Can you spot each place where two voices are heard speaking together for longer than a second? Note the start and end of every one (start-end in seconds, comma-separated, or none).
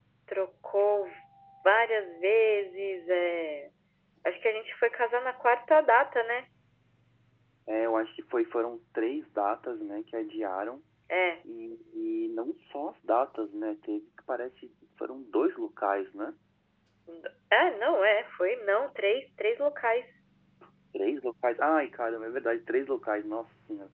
none